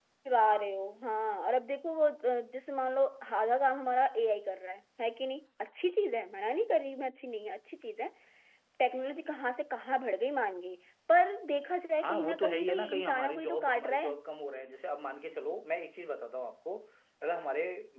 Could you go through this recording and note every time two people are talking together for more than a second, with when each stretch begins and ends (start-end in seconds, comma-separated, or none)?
12.0-14.1